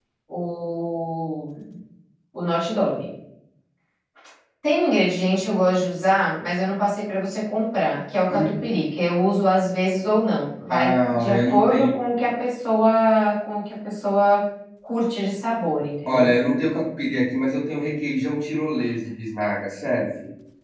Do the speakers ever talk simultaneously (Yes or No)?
Yes